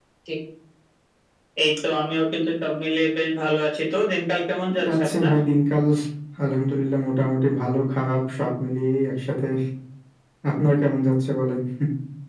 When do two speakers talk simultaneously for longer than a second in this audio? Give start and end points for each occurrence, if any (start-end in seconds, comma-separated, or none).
none